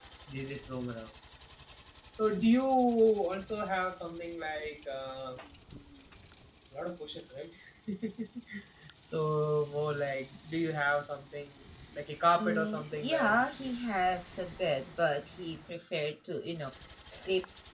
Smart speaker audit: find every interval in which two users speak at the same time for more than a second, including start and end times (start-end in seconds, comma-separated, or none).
12.4-13.7